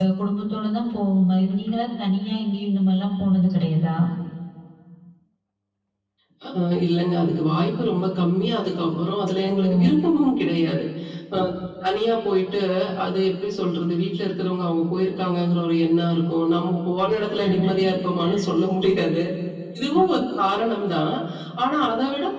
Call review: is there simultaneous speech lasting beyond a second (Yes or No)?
No